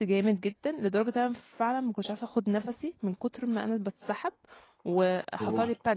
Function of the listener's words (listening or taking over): listening